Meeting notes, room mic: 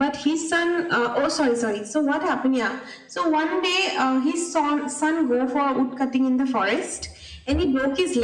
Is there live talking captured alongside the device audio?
No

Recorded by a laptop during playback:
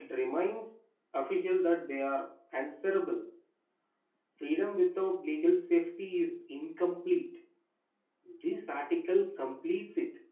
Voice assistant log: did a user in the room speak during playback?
Yes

